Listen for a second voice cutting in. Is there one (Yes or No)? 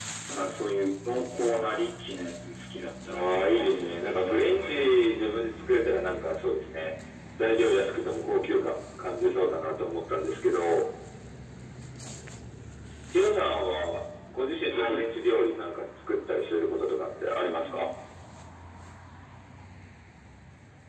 Yes